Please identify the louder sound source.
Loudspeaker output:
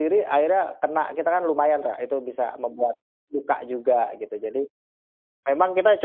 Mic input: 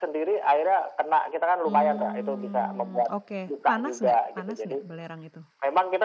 echo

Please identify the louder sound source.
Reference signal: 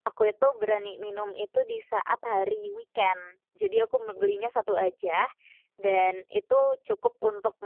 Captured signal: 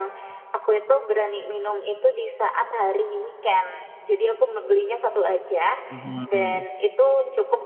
echo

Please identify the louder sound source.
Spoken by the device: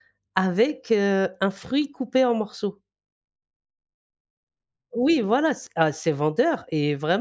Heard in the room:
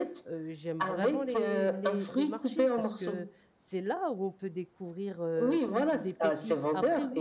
echo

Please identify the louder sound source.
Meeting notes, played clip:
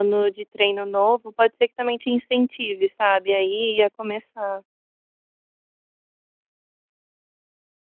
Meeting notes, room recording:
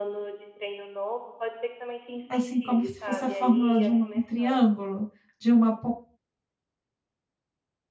user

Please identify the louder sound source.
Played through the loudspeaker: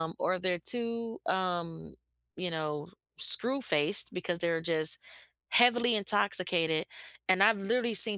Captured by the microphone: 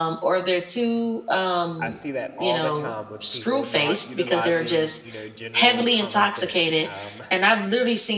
echo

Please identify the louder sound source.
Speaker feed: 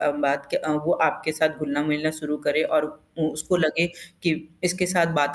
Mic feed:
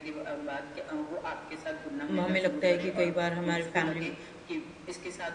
user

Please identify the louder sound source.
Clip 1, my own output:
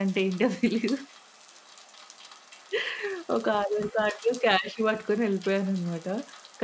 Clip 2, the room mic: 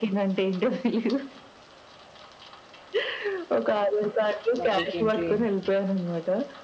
echo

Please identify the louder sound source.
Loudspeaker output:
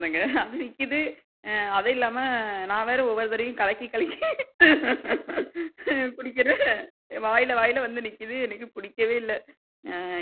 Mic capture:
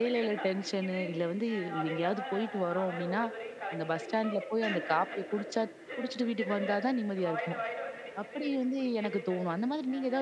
user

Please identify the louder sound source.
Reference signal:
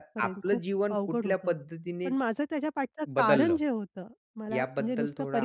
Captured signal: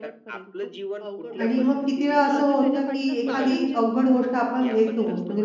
user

